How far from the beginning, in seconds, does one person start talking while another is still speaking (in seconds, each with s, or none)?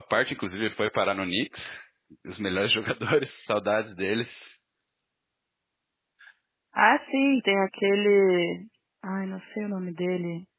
none